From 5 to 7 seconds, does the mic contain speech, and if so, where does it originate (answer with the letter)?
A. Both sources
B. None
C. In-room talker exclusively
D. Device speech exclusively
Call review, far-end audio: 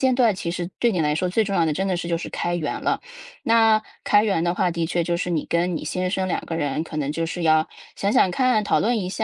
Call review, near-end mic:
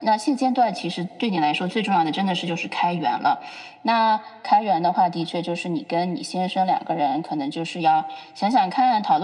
D